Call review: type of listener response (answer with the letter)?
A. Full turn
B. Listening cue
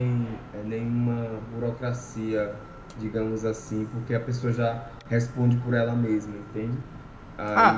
A